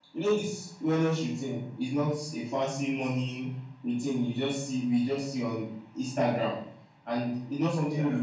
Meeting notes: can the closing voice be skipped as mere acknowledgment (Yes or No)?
Yes